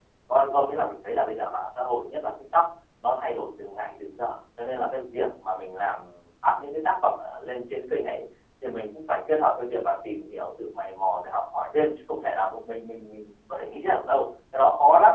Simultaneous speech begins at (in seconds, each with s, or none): none